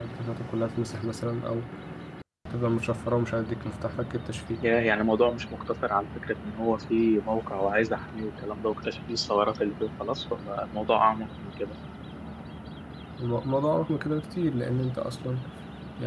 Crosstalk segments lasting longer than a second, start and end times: none

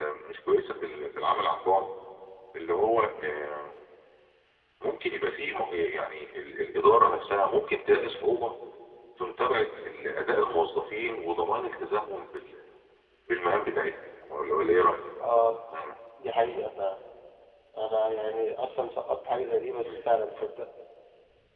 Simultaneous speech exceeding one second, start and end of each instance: none

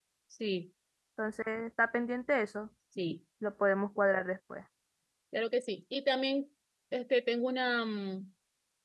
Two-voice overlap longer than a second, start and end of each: none

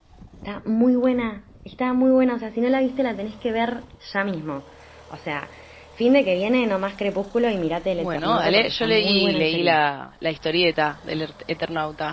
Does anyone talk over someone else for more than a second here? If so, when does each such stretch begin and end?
8.0-9.8

